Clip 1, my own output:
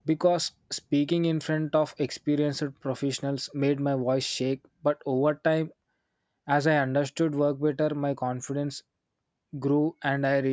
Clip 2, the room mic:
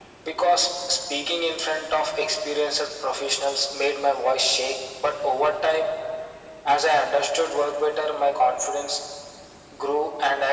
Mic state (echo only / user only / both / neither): echo only